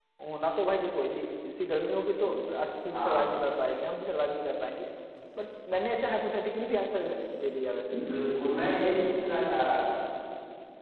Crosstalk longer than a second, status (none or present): none